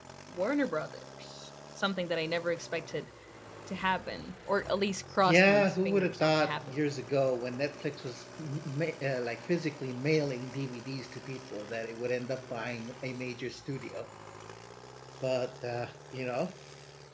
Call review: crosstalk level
present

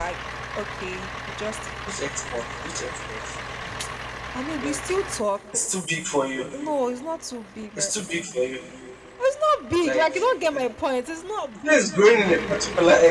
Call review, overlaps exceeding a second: none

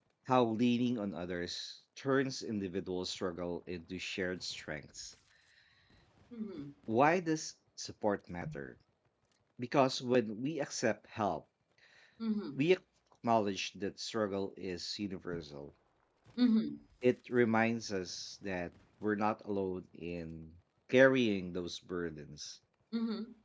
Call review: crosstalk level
none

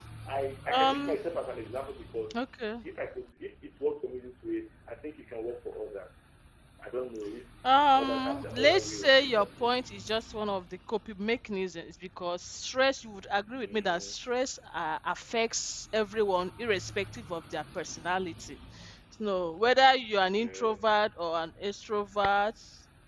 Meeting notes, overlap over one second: present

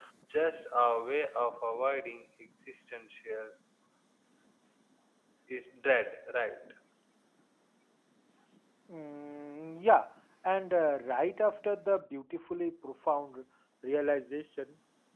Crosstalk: none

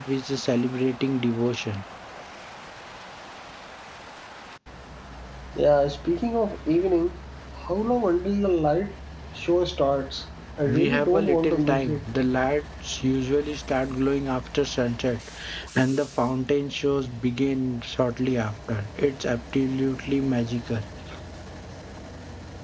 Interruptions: present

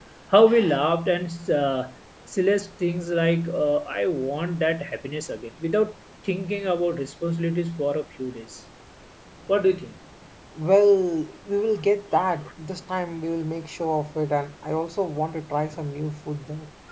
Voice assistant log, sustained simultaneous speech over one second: none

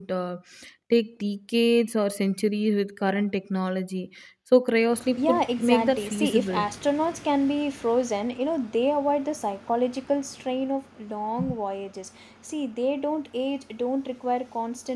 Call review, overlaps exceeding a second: present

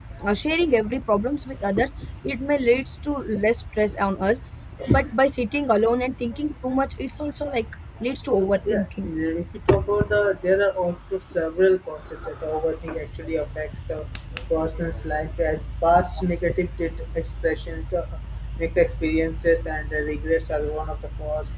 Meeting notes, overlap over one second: none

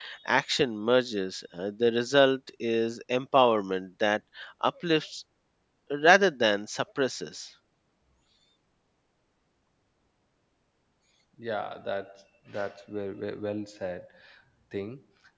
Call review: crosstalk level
none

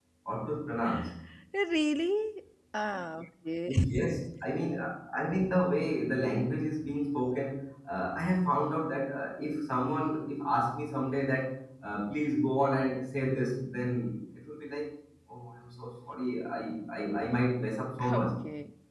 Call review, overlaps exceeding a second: none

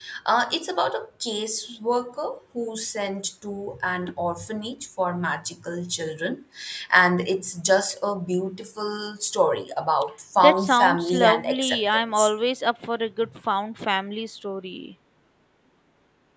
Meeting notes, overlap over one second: present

